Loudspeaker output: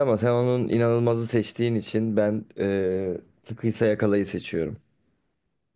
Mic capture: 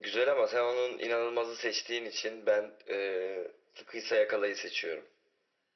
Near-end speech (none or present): none